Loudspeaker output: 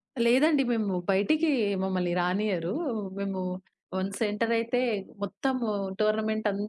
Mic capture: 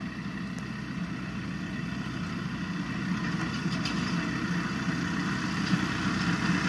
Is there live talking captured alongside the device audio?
No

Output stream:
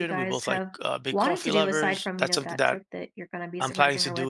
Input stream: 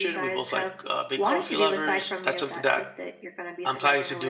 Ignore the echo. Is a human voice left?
No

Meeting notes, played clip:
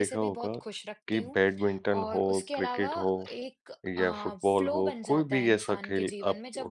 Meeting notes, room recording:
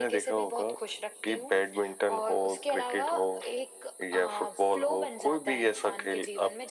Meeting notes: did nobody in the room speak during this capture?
Yes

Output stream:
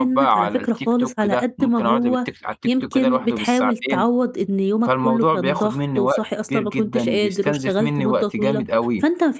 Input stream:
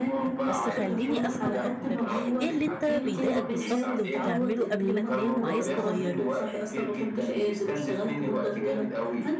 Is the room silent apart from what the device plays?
No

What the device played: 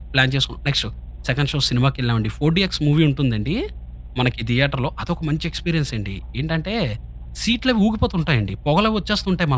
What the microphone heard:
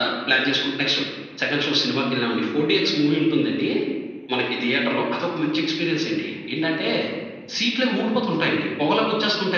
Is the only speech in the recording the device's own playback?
Yes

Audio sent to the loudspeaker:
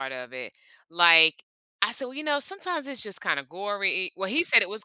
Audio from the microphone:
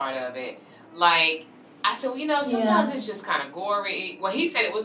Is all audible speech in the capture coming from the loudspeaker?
No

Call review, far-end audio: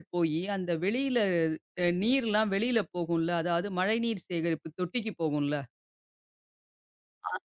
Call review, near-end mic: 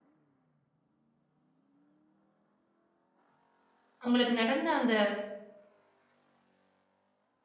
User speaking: Yes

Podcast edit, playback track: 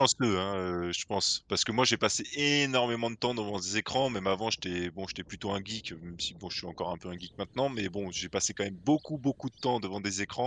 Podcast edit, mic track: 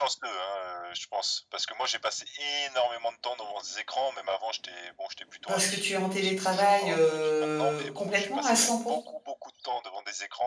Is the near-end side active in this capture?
Yes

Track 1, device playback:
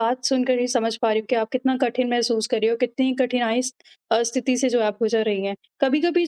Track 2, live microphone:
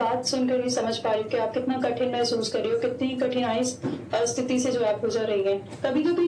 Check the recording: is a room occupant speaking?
No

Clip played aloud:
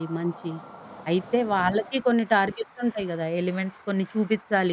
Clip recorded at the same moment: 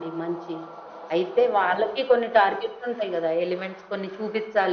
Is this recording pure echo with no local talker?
Yes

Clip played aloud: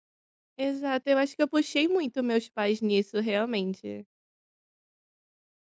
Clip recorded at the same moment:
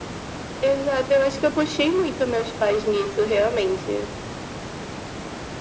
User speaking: No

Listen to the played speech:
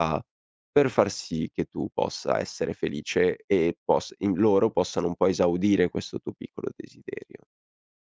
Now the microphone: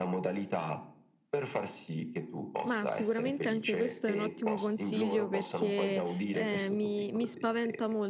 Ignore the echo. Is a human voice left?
Yes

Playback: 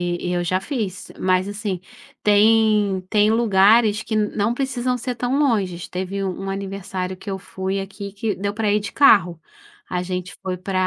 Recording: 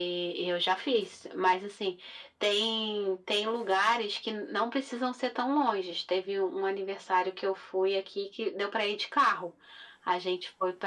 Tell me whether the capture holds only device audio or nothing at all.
Yes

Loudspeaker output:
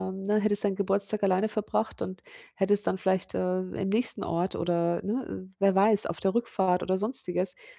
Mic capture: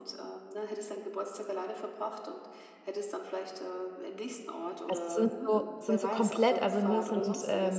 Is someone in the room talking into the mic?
Yes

